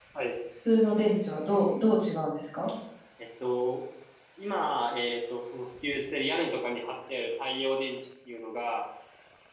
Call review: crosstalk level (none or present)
none